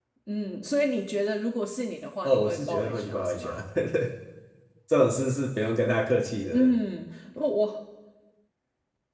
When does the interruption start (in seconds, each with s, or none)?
2.2 s